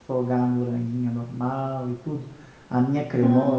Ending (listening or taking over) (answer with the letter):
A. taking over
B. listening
B